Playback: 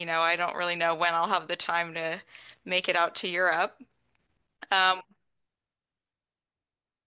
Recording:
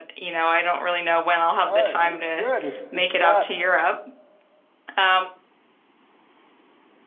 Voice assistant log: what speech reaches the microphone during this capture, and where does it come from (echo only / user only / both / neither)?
both